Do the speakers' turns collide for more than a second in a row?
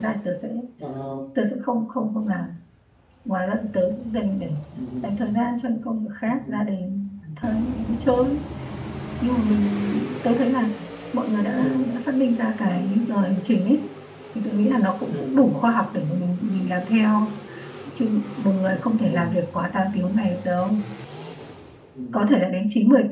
No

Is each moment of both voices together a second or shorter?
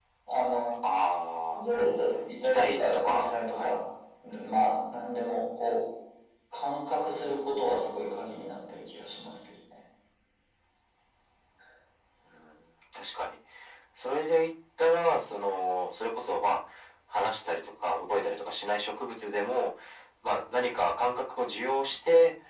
No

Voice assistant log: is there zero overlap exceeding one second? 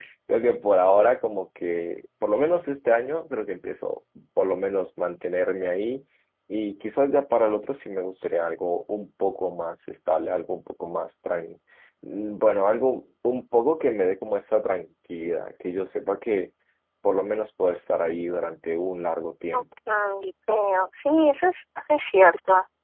Yes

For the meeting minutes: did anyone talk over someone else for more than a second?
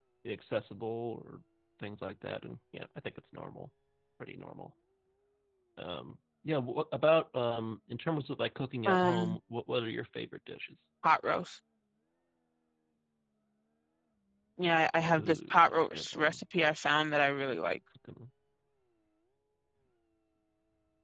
Yes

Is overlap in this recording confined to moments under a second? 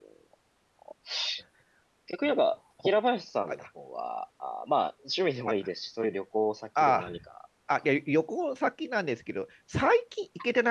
Yes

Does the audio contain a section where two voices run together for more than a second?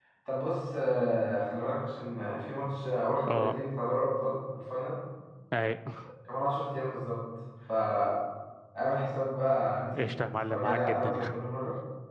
Yes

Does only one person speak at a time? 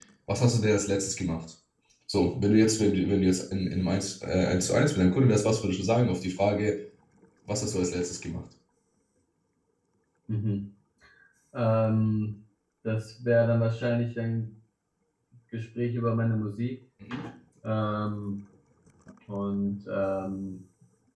Yes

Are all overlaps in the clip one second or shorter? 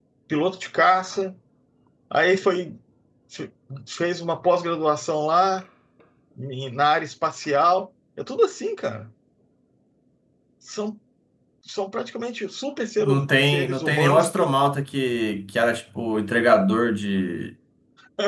No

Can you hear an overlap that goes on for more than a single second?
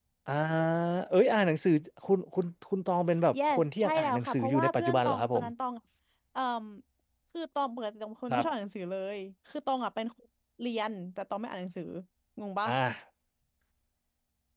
Yes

